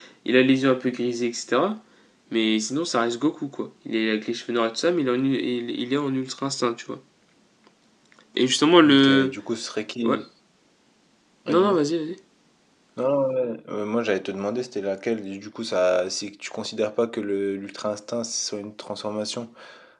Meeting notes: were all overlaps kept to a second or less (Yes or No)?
Yes